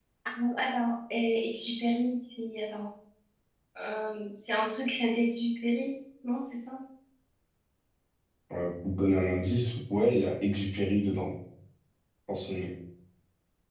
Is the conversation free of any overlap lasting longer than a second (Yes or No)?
Yes